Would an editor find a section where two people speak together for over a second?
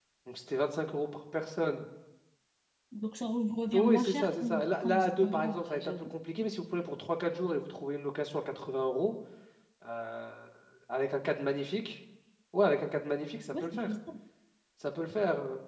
Yes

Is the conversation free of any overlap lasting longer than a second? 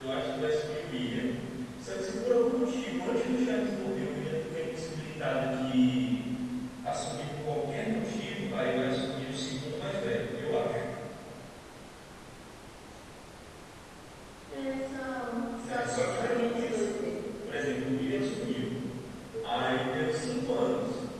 No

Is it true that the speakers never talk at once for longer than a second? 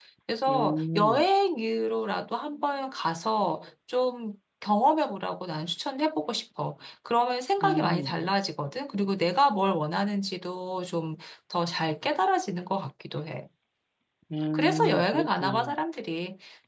No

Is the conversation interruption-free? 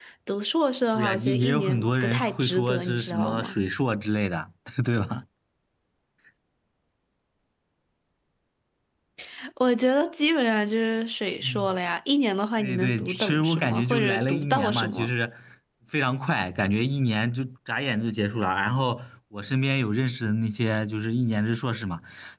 No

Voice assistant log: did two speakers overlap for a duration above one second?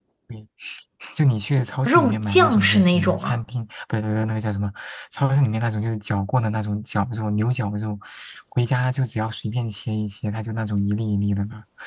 Yes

